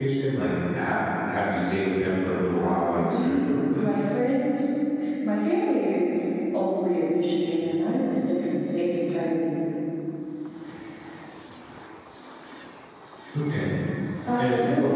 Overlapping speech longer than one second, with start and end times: 2.4-4.0

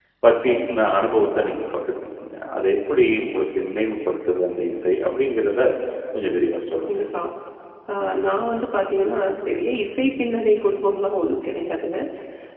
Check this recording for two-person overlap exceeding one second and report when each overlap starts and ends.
none

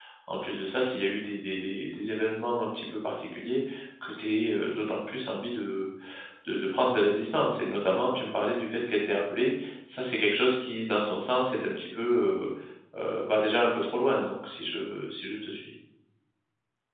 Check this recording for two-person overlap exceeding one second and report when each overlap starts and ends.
none

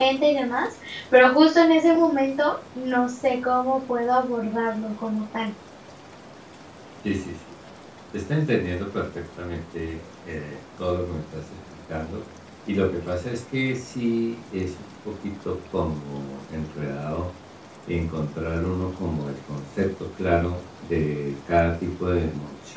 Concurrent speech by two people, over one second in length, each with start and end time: none

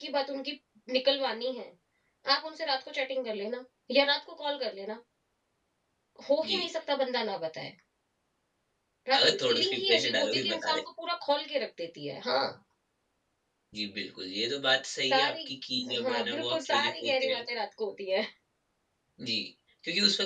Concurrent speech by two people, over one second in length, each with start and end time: 9.2-10.8, 16.0-17.4

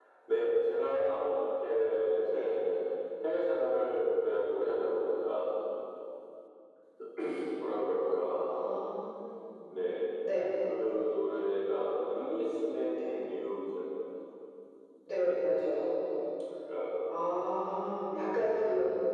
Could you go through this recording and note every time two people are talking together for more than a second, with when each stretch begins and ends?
none

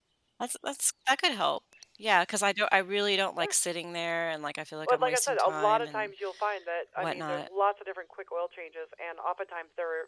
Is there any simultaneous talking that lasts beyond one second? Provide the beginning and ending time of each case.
4.8-6.1

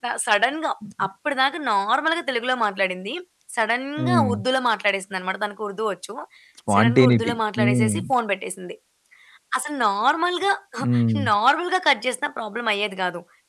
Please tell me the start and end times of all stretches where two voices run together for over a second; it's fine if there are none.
6.7-7.9

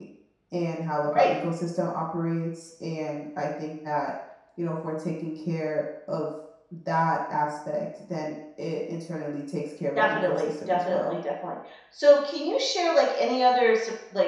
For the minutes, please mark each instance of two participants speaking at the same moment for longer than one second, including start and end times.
9.9-11.2

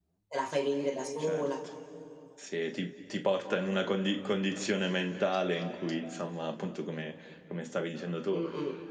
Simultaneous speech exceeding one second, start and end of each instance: none

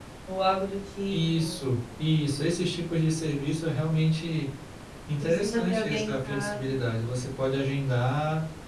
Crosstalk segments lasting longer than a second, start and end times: 5.2-6.8

